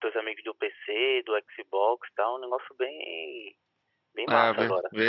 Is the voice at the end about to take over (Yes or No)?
Yes